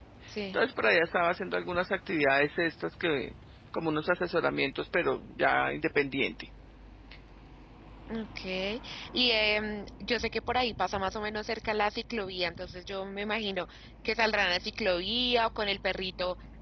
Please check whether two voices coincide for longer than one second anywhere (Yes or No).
No